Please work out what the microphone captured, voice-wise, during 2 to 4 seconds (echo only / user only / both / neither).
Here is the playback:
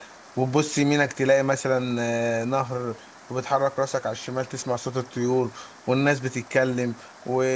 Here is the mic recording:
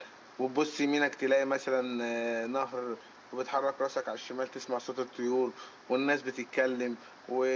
echo only